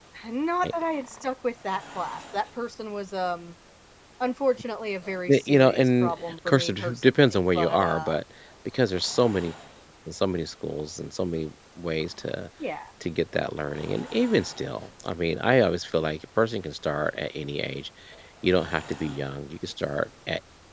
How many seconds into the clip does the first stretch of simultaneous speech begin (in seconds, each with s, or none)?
5.3 s